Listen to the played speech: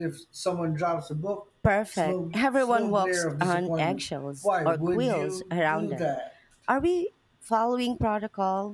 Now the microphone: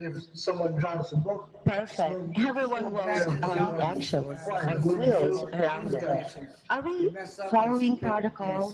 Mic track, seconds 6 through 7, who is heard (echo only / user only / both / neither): both